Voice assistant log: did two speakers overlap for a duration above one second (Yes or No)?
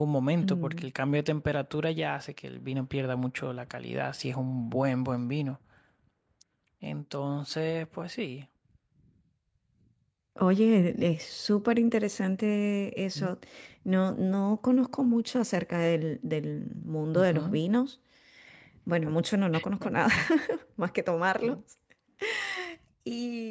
No